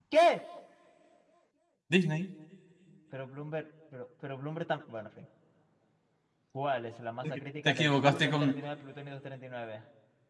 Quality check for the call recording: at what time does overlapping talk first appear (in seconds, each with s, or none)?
7.2 s